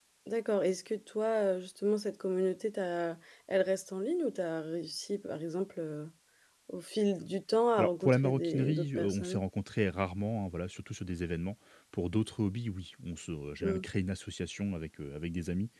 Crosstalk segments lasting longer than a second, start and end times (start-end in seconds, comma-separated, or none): 7.8-9.4